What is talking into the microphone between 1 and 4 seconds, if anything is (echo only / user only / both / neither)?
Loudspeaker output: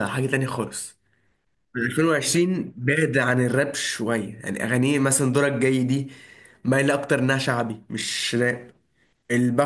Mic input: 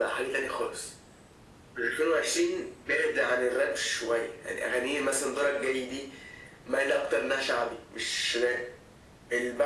echo only